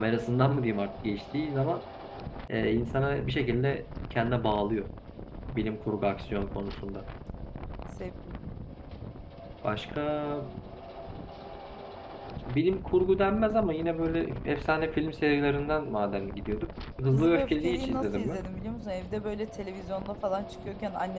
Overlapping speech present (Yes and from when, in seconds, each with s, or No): Yes, from 17.1 s